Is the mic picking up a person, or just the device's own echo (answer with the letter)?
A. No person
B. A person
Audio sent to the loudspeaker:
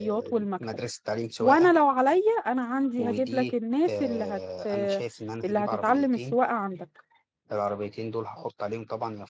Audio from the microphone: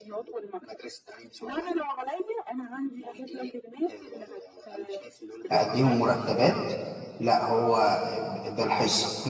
B